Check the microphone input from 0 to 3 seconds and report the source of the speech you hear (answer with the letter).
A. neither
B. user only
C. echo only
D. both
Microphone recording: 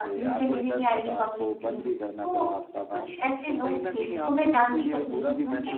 D